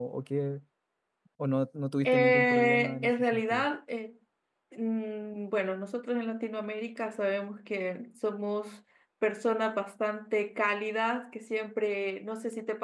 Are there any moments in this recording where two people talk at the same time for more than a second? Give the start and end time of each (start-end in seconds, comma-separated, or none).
2.0-3.7